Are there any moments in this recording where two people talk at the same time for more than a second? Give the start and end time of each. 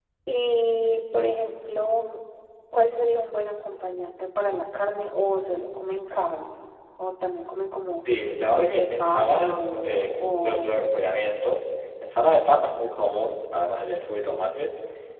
8.5-10.9

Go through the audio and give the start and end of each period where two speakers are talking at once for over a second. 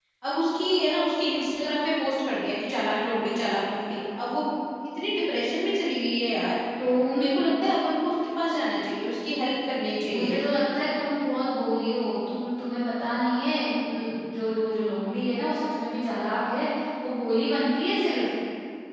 none

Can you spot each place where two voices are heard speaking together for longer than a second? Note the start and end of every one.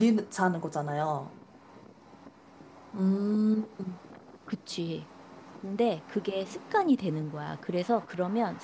none

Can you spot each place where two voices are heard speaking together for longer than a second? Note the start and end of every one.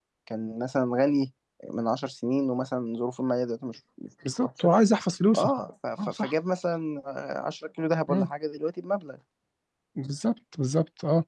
none

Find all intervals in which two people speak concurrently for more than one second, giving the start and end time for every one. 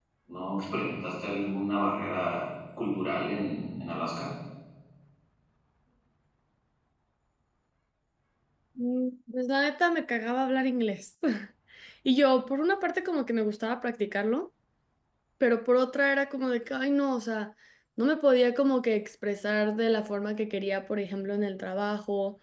none

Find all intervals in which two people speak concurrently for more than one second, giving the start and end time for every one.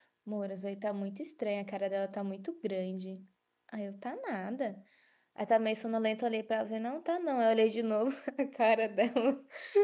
none

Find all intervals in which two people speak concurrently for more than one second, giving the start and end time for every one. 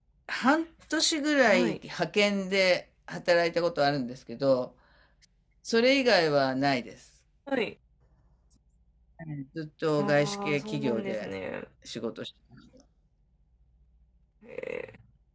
10.0-11.3

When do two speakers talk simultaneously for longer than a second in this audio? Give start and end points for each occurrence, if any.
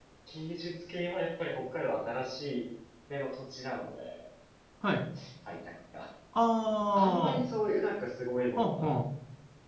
none

